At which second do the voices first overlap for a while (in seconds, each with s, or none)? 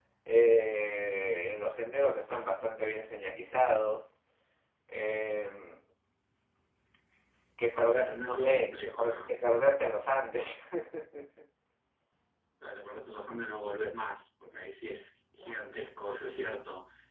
7.7 s